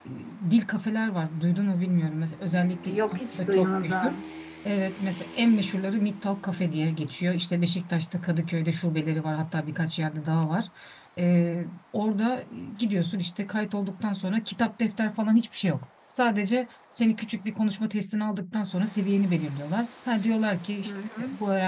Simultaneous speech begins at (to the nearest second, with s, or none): 3 s